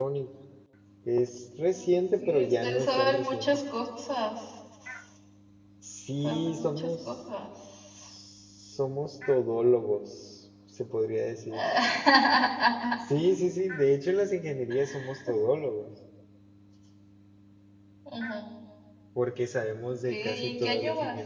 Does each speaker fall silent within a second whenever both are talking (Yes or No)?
No